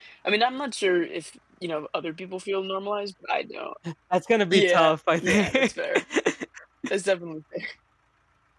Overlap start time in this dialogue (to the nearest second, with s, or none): 5 s